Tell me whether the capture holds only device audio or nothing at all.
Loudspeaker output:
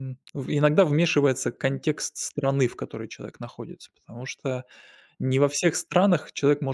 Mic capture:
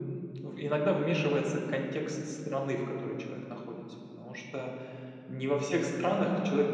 Yes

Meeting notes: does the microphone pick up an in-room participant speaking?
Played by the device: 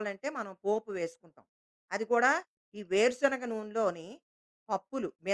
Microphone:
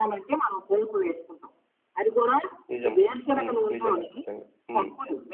Yes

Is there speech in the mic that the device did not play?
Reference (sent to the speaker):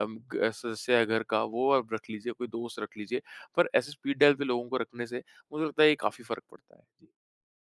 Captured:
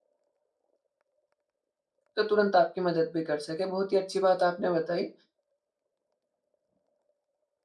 Yes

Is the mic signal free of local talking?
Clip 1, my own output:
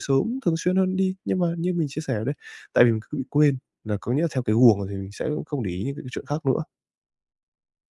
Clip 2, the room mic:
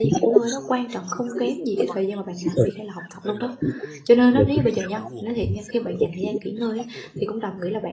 No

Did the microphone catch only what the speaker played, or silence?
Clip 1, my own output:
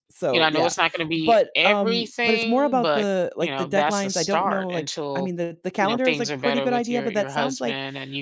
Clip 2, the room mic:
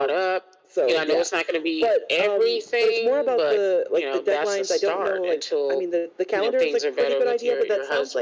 Yes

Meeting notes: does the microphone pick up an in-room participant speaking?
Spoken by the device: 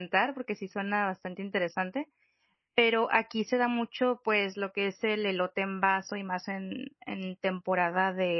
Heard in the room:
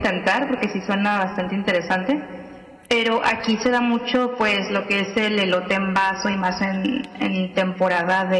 No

